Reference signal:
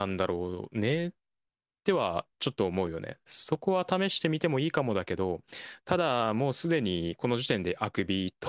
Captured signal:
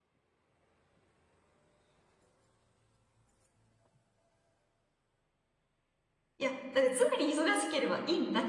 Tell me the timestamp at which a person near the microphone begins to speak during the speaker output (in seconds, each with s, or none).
6.4 s